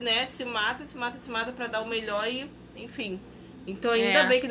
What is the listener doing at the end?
listening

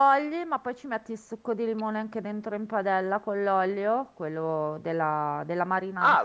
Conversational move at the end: taking over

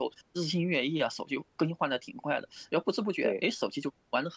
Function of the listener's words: listening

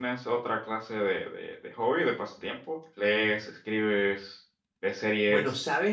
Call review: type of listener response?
taking over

